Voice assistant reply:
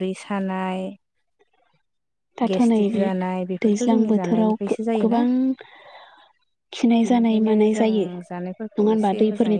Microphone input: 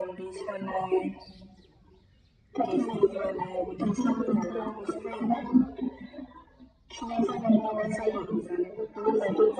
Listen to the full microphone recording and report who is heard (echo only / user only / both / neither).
echo only